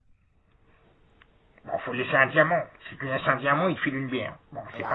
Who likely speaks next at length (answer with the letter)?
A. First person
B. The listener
B